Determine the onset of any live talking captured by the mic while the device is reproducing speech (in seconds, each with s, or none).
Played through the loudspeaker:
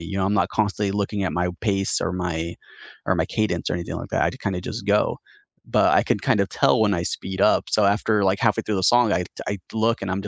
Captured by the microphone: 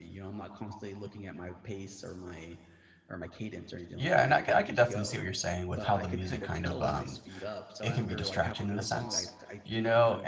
3.9 s